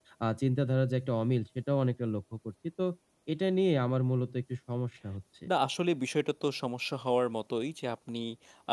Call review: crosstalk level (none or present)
none